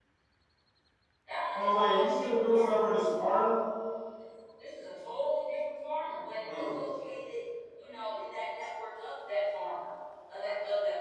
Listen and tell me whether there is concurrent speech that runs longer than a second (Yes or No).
Yes